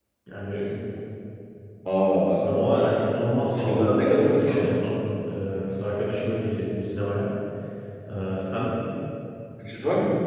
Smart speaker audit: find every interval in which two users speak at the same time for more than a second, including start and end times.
3.5-4.8

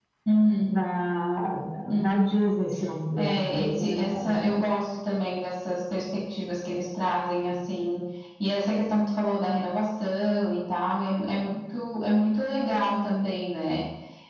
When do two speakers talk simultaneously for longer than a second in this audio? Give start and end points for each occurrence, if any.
3.2-4.7

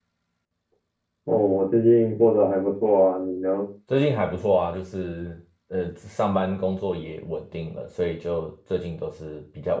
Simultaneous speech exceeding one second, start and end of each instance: none

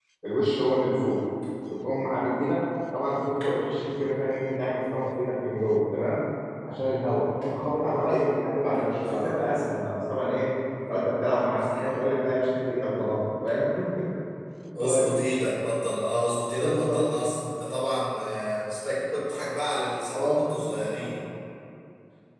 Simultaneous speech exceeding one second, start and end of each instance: none

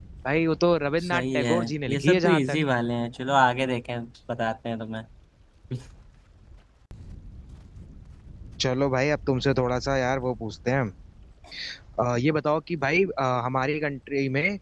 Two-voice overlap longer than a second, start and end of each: 1.0-2.6

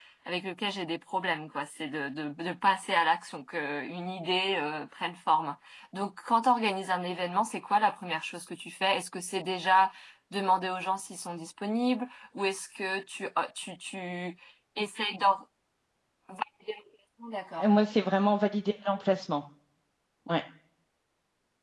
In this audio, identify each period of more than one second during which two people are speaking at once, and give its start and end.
none

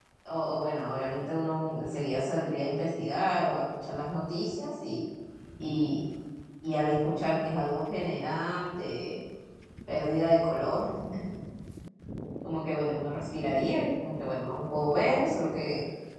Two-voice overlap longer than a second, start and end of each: none

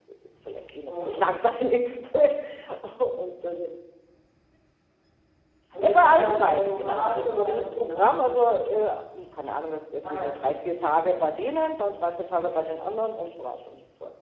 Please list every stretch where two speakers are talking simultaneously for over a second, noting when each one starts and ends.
5.8-8.0

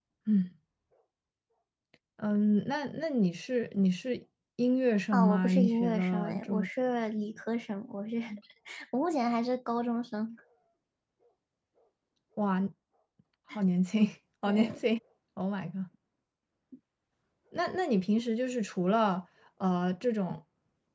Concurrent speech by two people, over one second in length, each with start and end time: 5.1-6.7

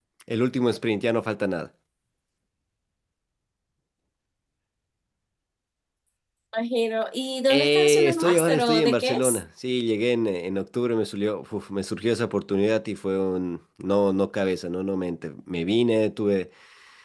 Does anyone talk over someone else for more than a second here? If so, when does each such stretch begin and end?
7.5-9.4

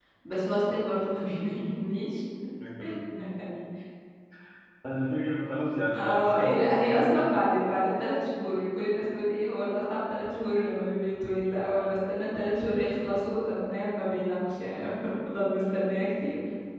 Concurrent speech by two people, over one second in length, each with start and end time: 6.0-7.2

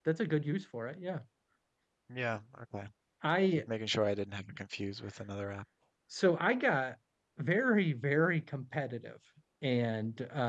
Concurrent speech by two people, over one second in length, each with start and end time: none

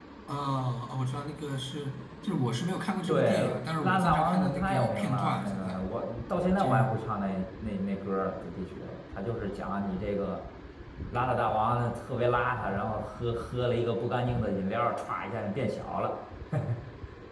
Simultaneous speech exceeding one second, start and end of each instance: 3.1-5.8

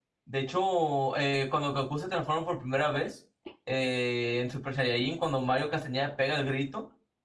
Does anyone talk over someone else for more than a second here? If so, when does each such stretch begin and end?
none

